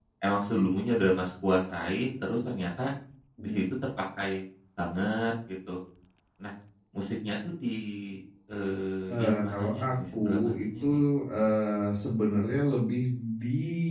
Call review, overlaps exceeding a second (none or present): present